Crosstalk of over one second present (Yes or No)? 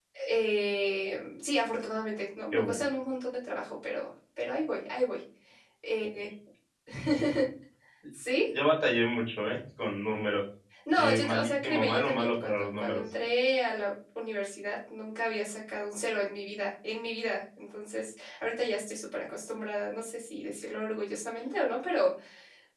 Yes